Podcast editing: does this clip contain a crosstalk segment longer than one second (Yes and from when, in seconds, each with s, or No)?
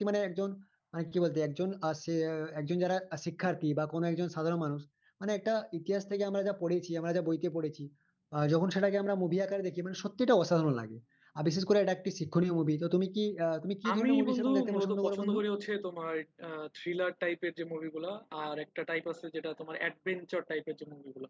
Yes, from 13.8 s